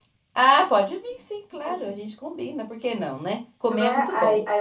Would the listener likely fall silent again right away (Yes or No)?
No